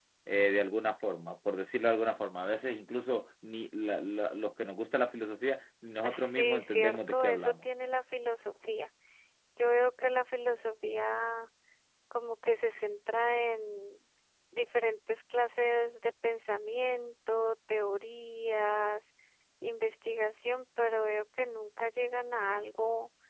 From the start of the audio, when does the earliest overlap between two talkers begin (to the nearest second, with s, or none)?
6 s